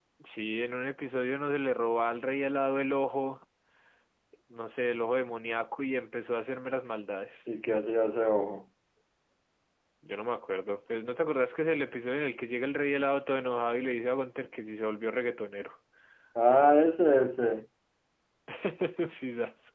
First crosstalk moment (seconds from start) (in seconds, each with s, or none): none